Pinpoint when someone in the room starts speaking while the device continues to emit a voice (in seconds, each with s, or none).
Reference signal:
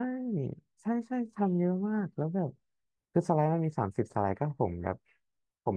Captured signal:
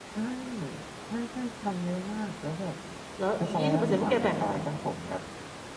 3.2 s